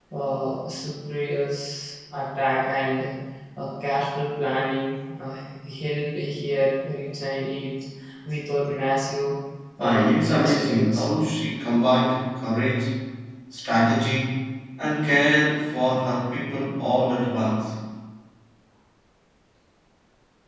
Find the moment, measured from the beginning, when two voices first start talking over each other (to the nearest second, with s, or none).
10 s